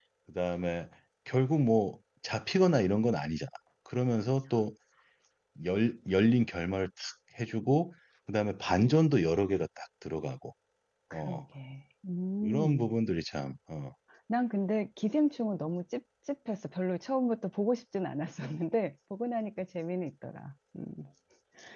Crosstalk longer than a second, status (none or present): none